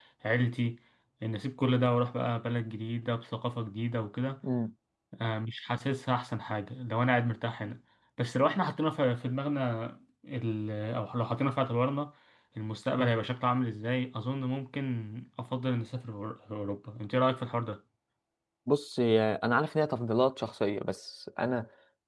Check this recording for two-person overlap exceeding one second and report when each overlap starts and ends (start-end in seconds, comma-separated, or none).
none